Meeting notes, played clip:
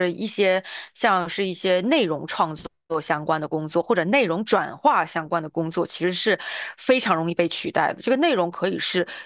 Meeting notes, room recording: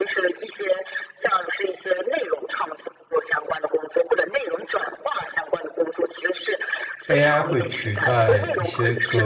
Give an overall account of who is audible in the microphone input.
both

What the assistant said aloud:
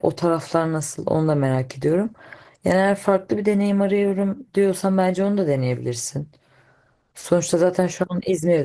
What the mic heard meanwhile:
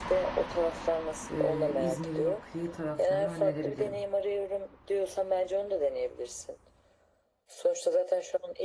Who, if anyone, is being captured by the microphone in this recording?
both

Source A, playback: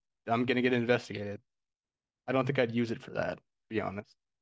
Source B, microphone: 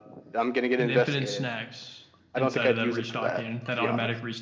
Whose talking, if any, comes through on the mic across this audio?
both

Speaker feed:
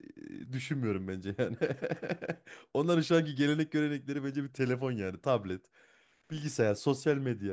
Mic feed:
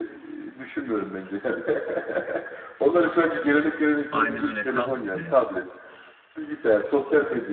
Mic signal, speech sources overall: both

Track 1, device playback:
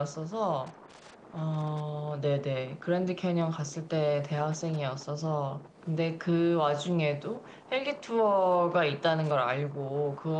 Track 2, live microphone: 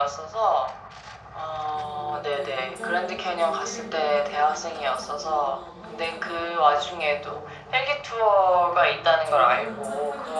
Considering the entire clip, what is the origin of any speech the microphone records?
both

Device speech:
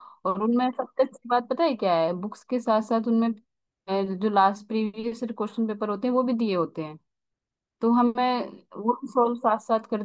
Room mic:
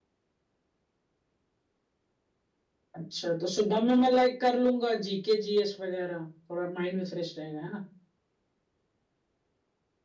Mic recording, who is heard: user only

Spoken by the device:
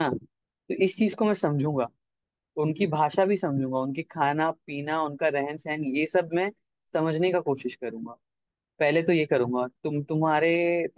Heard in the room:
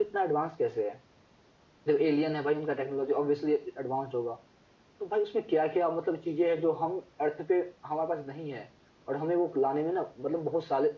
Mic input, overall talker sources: user only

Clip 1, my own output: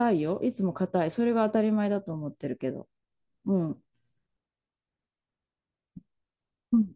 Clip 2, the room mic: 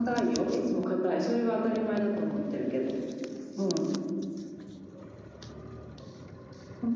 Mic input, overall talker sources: echo only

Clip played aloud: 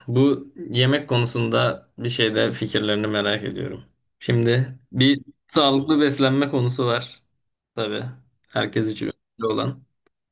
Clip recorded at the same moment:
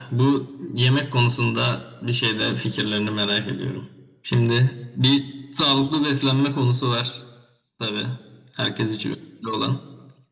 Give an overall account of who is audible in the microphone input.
echo only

